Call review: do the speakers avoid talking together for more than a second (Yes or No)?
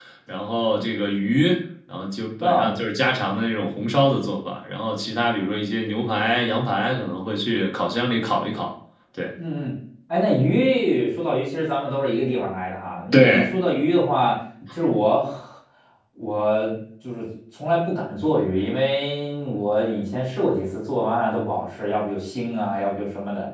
Yes